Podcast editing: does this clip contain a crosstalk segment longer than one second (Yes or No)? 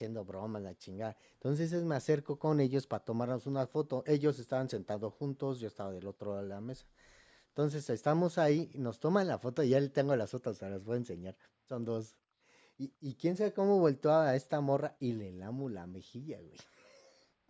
No